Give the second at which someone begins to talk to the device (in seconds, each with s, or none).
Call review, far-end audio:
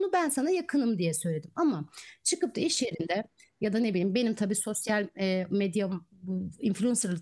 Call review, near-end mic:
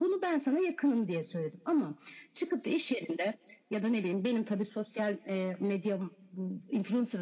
none